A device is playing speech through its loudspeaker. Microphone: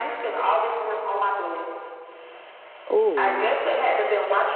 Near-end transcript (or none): Oh.